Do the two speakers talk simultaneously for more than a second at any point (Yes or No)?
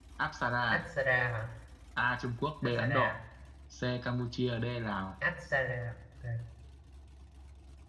No